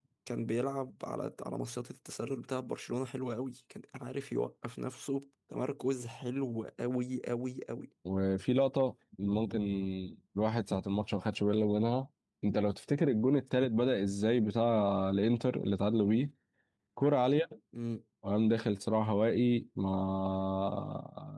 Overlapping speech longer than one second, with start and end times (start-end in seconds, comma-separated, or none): none